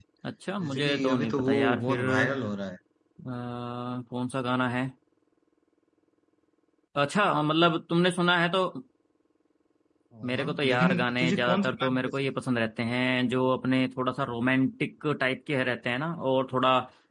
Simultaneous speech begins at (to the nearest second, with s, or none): 1 s